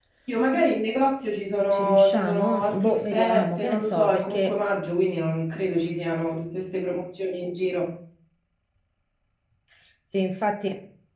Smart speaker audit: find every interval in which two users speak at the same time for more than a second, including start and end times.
1.7-4.5

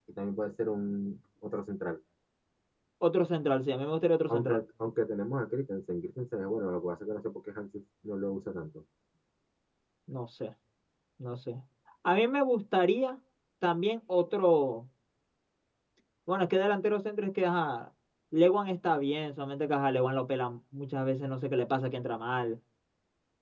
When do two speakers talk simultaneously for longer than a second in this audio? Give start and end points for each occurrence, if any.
none

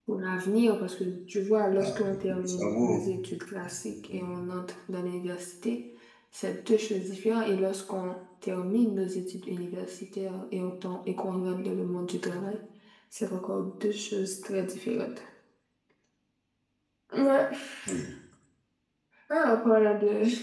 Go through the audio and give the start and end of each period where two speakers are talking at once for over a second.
1.8-3.0

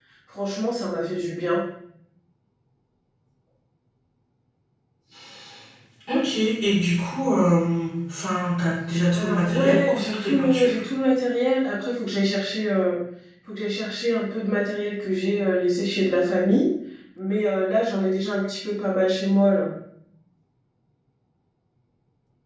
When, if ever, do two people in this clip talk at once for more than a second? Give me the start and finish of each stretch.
9.1-10.7

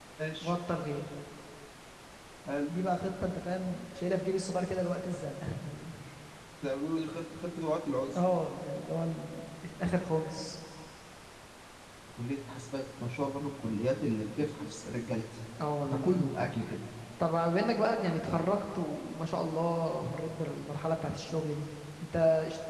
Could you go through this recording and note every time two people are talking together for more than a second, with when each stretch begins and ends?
none

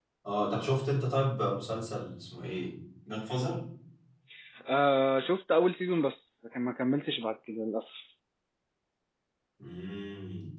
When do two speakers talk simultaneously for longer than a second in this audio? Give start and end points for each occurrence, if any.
none

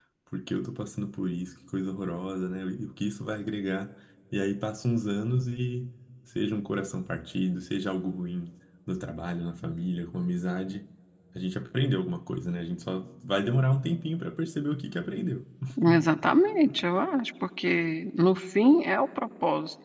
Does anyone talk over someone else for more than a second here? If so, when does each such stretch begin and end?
none

